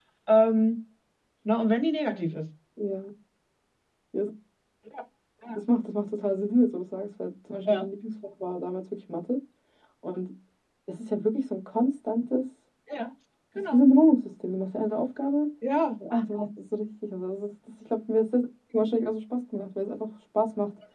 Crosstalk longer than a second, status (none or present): none